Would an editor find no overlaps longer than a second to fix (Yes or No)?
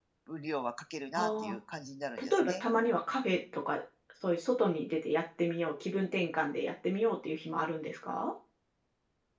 Yes